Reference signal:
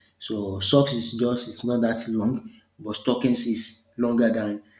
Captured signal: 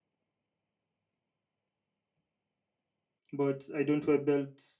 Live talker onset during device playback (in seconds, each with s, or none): 3.3 s